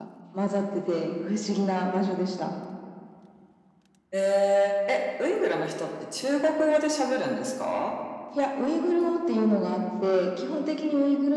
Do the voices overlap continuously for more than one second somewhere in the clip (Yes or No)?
No